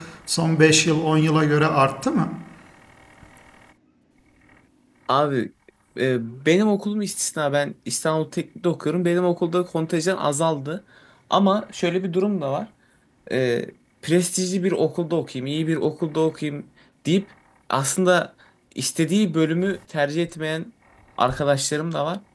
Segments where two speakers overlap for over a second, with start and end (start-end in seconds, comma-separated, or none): none